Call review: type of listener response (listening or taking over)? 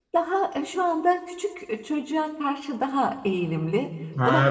taking over